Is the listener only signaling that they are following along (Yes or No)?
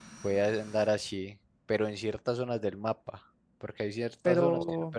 Yes